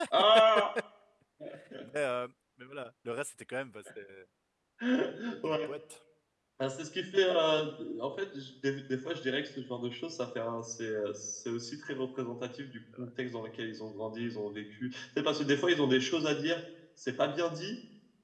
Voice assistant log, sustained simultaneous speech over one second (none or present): none